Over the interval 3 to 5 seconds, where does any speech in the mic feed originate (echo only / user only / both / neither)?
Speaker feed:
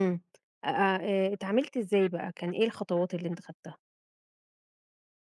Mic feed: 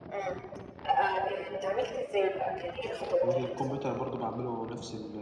both